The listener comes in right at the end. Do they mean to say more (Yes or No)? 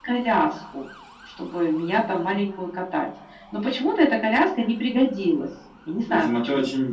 Yes